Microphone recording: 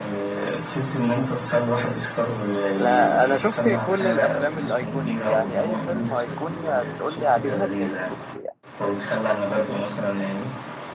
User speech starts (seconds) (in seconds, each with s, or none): 2.8 s